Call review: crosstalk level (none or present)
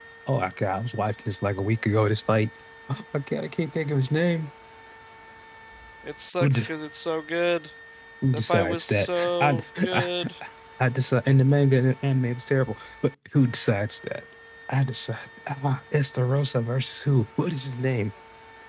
present